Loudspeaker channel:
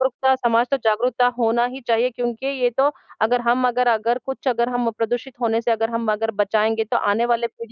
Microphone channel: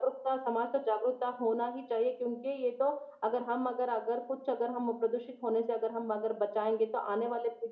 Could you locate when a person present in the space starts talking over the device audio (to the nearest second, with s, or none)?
none